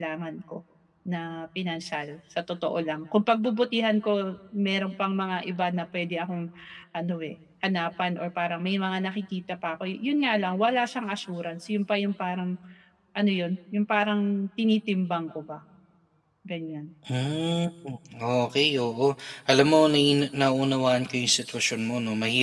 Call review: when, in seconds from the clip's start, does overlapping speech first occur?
none

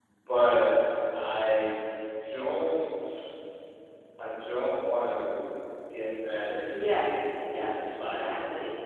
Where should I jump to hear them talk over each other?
6.7 s

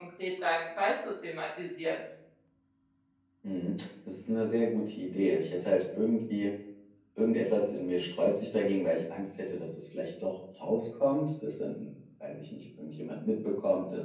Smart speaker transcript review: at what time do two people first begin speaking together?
none

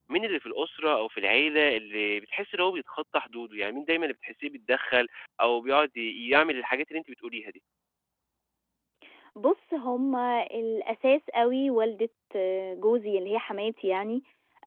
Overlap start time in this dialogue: none

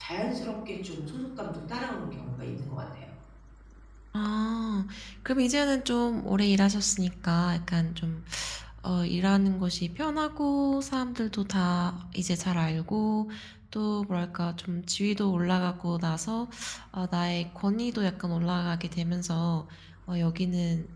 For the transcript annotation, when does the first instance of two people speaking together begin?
none

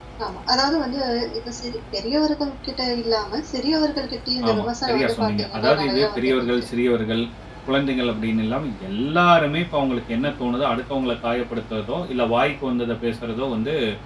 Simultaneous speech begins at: 4.4 s

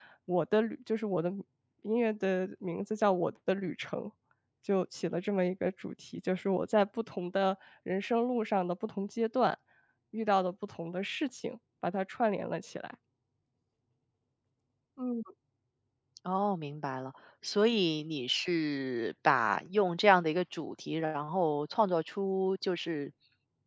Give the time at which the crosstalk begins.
none

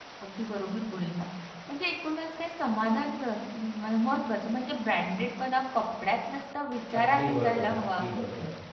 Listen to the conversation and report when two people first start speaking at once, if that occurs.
6.9 s

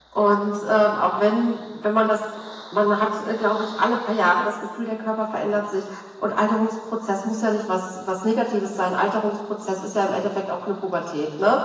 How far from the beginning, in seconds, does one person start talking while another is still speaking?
none

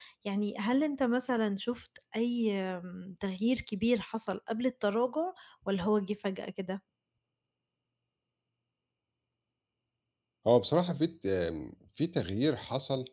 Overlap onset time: none

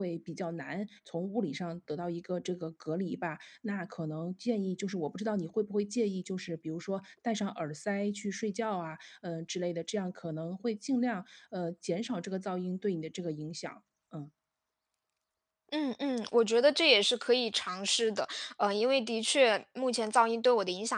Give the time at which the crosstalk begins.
none

